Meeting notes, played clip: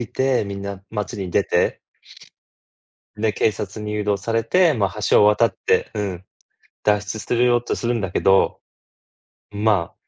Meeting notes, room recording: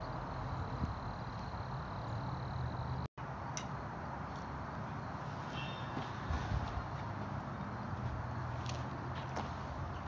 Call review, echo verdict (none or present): none